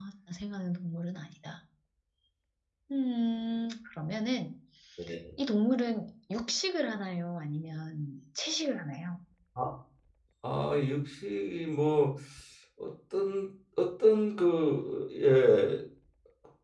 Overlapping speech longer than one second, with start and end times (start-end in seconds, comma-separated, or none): none